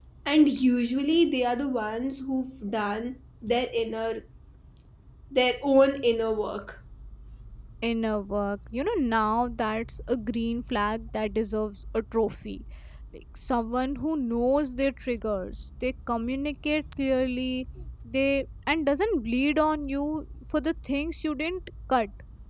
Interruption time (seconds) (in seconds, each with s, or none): none